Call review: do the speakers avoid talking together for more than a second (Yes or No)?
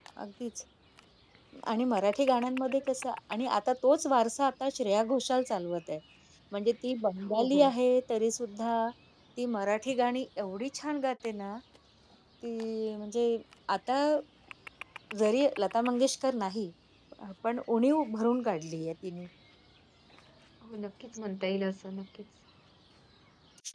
Yes